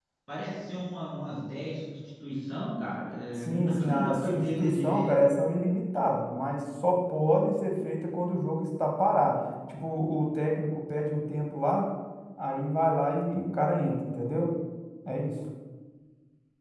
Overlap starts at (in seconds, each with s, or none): 3.4 s